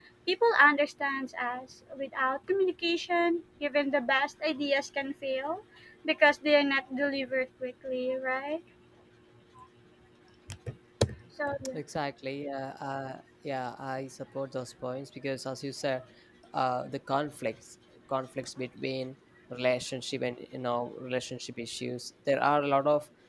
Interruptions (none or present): none